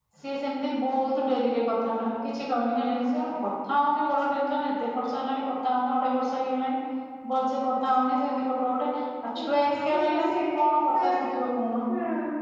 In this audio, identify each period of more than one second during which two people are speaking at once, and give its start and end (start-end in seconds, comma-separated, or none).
9.4-11.0